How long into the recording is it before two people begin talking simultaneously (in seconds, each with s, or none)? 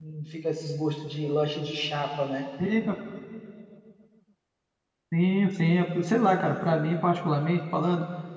none